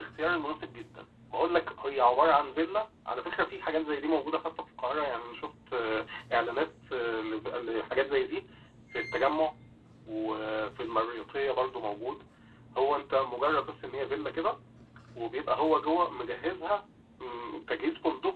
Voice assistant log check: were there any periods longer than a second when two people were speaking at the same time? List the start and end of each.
none

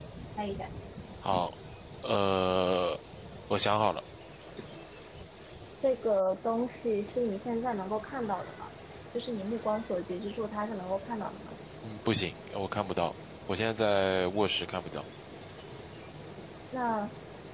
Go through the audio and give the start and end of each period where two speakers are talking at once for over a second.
none

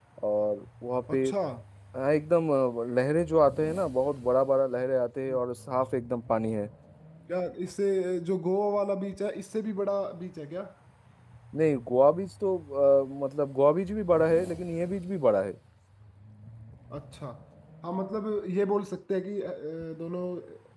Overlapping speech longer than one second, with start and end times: none

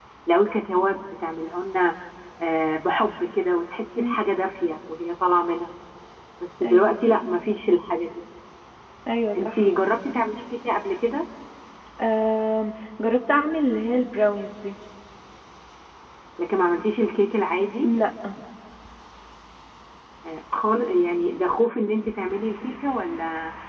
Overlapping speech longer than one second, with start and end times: none

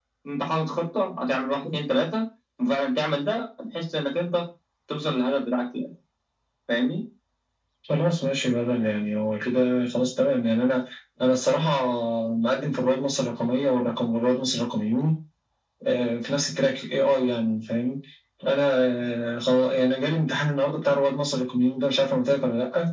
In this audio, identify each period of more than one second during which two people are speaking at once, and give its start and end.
none

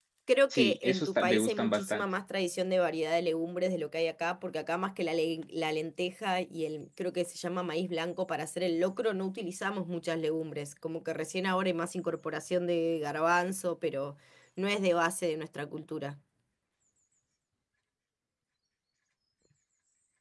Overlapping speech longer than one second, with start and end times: 0.5-2.0

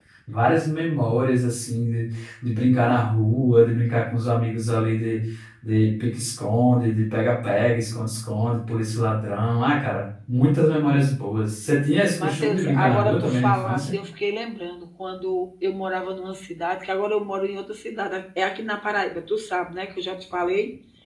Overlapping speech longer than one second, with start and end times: 12.2-14.0

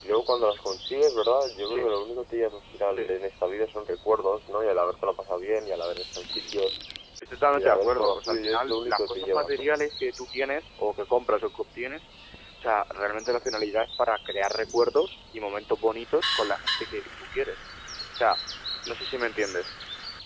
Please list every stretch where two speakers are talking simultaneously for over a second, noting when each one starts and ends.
7.5-9.7

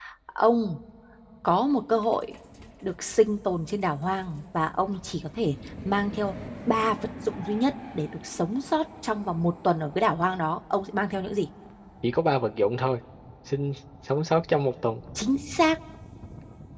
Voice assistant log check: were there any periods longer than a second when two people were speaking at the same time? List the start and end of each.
none

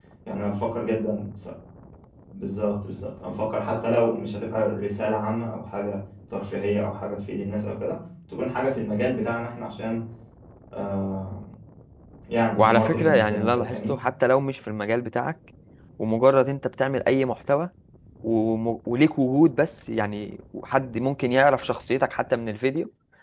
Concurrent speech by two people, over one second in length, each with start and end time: 12.6-13.9

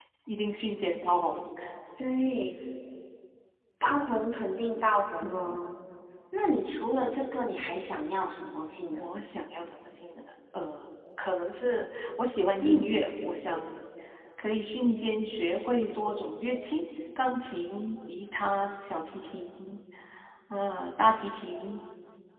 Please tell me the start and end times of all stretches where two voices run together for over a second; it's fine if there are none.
none

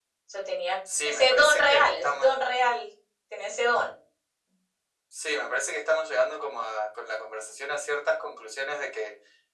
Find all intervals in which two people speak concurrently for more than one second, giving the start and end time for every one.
1.1-2.3

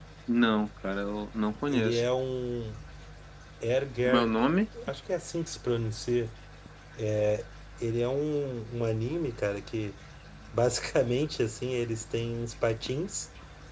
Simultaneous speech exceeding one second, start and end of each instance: none

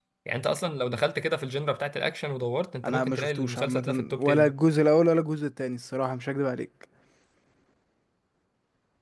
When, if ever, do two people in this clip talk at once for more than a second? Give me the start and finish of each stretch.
2.8-4.5

